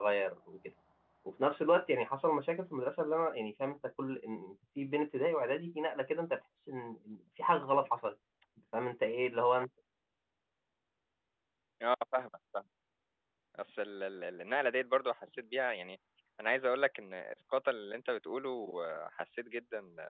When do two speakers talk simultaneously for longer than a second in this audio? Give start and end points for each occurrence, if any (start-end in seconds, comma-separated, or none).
none